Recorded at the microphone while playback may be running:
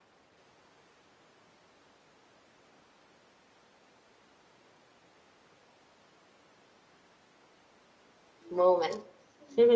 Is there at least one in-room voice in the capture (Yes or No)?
Yes